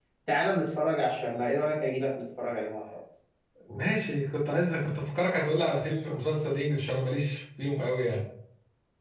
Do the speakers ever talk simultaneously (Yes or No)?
No